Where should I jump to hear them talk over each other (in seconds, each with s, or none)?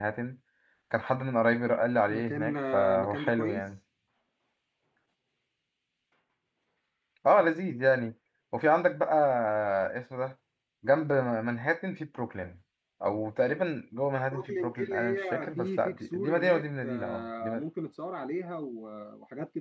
2.1 s